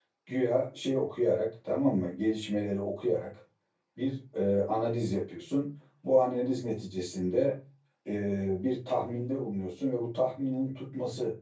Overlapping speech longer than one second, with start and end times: none

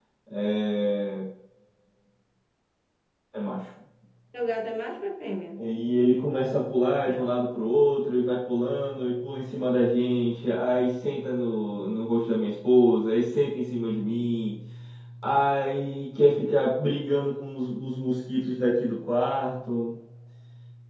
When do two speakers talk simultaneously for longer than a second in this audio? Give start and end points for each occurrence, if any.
none

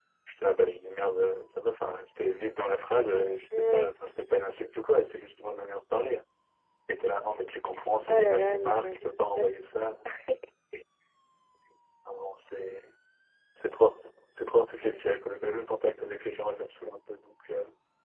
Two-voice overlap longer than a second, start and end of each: 8.1-9.5

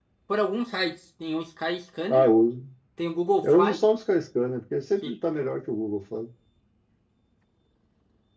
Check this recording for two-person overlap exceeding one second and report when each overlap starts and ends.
none

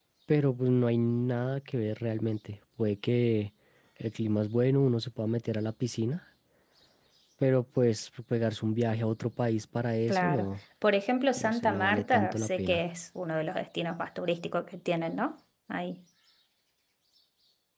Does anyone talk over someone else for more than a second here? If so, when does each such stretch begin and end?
11.4-12.8

